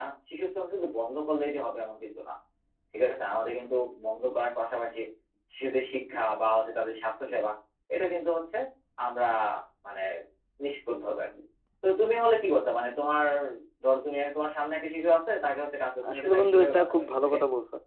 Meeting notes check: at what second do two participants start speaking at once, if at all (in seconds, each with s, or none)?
16.0 s